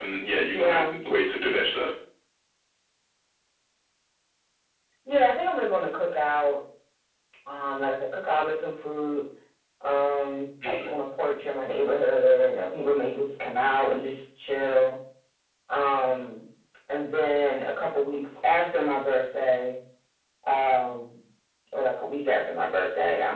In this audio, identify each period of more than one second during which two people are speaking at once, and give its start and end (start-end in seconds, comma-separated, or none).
none